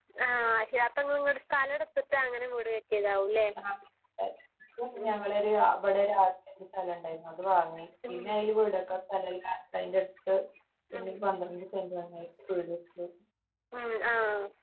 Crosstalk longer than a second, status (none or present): none